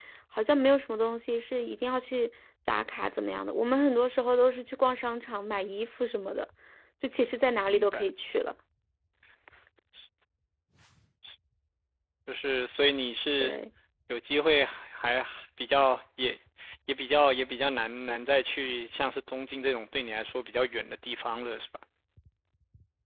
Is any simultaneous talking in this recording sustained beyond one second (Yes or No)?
No